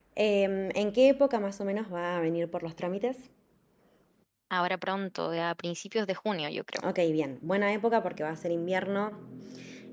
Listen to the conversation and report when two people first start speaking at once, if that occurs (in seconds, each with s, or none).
none